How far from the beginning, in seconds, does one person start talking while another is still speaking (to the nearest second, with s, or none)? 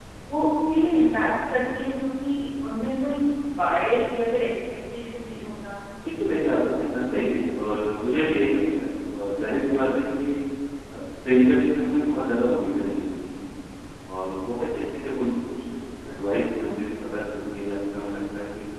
none